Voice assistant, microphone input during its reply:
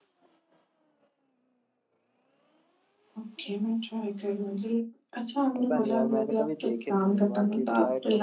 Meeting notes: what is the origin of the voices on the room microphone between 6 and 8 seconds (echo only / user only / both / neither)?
both